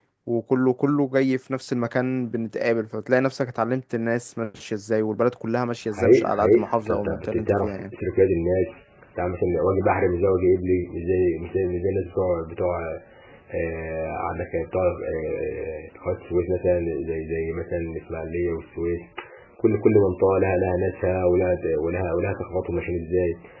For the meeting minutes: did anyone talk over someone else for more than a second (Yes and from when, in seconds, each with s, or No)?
Yes, from 5.9 s